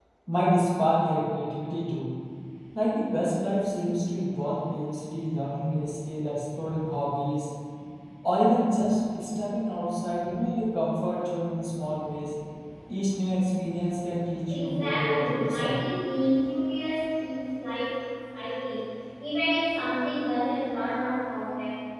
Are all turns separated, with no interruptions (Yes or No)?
No